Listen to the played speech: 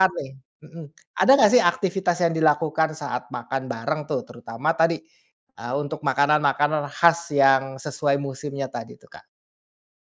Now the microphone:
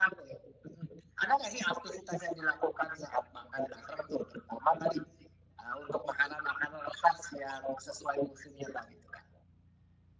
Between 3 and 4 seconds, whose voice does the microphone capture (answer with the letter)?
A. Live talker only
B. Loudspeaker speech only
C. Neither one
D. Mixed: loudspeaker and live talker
B